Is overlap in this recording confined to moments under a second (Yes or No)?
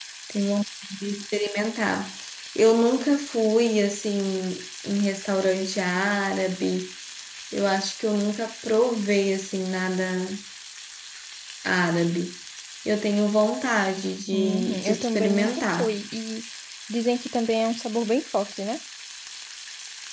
No